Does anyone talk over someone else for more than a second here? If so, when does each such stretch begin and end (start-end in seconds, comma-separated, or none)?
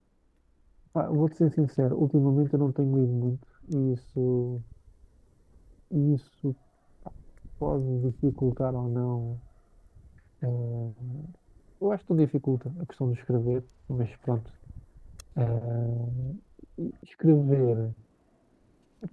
none